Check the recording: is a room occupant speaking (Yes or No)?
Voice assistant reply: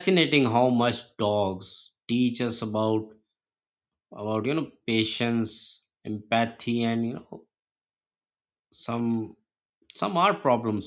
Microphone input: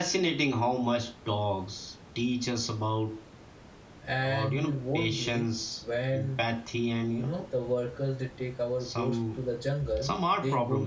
Yes